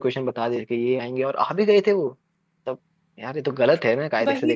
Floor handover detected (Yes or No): Yes